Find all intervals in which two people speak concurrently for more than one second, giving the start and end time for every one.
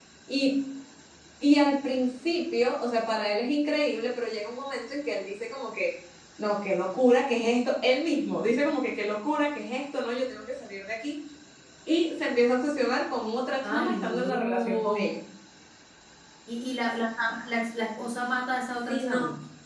13.6-15.2

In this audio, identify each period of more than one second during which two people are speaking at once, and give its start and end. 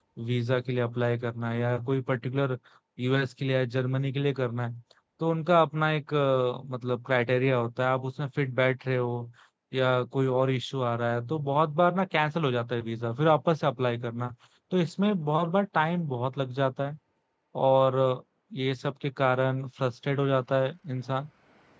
none

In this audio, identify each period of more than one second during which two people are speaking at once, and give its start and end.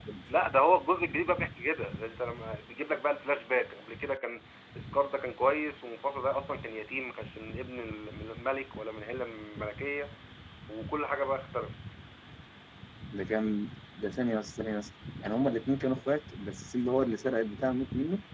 none

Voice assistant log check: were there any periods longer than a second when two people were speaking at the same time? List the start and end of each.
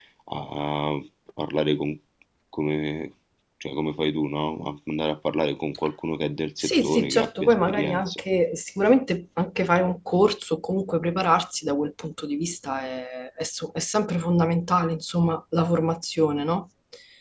6.6-8.2

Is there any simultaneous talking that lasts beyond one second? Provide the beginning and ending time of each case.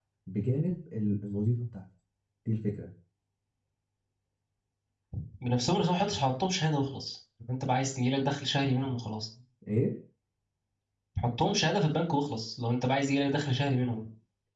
none

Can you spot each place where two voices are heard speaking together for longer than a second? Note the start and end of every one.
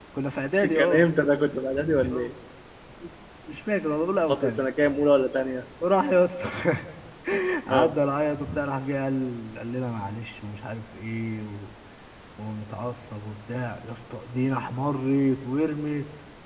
none

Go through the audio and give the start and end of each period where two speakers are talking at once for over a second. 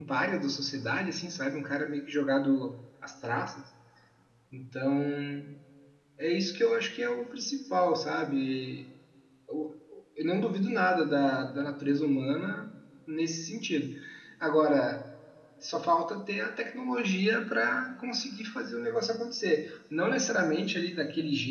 none

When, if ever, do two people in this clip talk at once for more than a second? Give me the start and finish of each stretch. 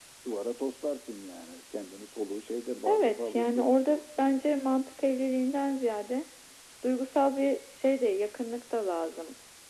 2.9-4.6

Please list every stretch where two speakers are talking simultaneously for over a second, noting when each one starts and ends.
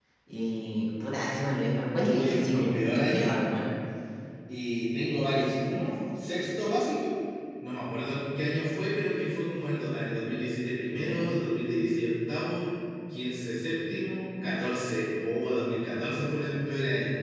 1.9-3.4

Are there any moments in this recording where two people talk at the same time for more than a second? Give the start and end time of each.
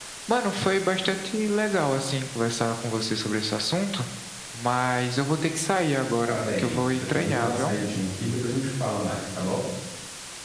6.3-7.8

